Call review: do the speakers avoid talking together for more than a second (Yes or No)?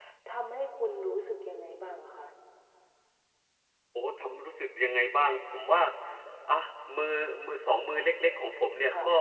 Yes